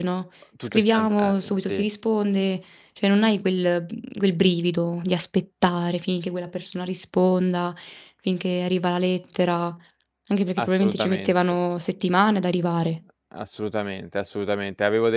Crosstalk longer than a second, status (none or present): present